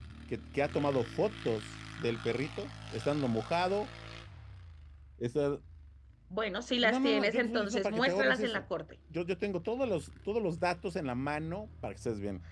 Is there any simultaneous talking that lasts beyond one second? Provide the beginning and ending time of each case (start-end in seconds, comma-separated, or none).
6.9-8.6